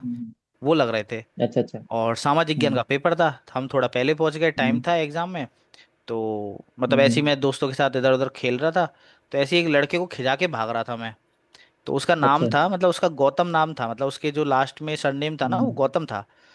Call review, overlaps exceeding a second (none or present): none